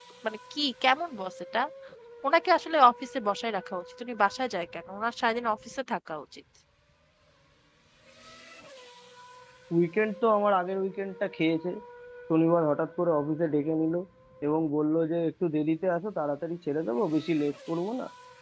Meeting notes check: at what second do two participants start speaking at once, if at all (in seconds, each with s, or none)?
none